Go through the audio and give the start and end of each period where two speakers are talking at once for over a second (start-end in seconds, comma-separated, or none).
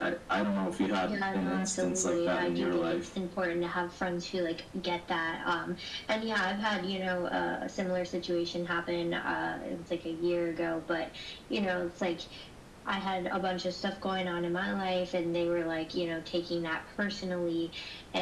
1.0-3.0